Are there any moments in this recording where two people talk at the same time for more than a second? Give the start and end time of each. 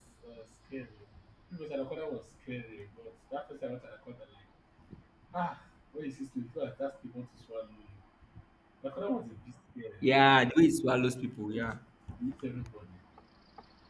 none

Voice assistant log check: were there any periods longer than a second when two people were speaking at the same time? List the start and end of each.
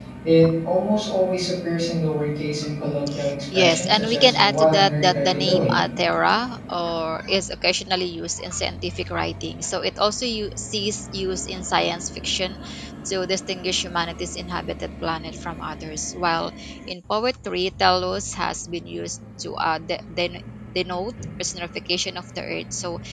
3.5-5.8

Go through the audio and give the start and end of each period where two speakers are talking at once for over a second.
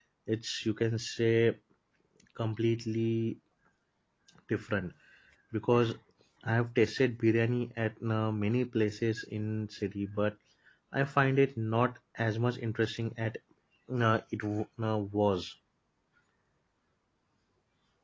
none

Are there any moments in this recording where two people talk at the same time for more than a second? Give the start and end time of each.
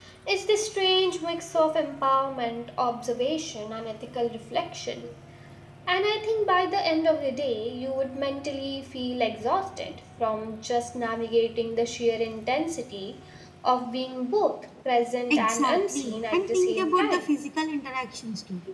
15.3-17.2

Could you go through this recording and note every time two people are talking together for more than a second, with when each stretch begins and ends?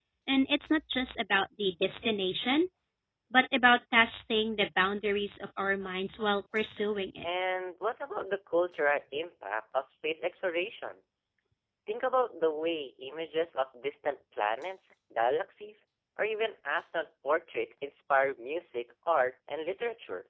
none

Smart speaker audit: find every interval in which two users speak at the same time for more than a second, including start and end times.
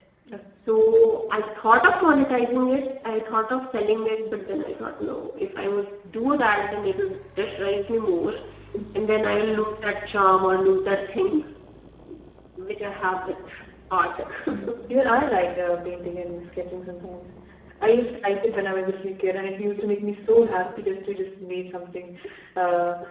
none

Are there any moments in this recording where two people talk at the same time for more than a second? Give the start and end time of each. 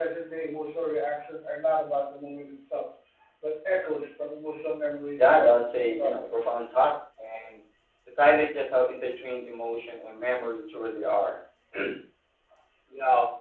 5.2-6.4

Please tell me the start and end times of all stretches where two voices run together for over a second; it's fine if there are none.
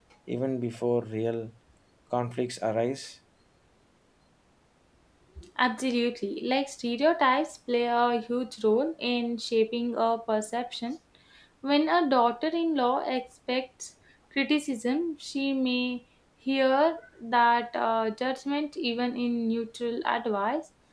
none

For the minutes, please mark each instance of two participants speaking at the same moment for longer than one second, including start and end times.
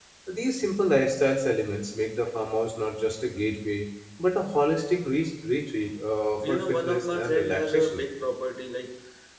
6.4-8.0

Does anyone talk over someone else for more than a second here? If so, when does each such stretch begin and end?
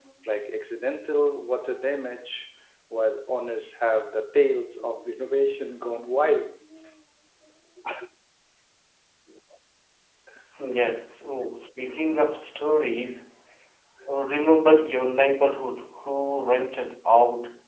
none

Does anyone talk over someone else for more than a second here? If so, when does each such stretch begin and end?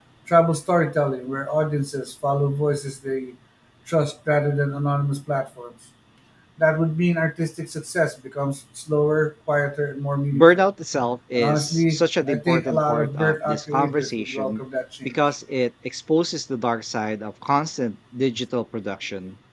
11.4-14.6

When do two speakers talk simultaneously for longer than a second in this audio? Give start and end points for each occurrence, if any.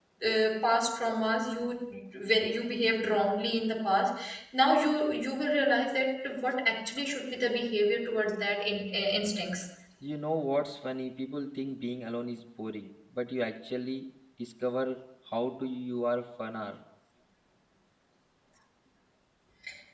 none

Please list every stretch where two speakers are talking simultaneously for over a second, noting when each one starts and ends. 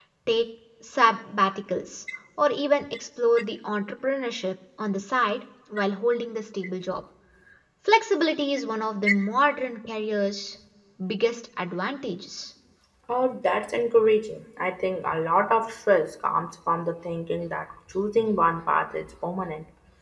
none

